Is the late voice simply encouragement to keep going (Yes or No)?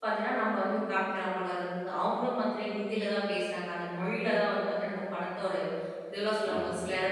Yes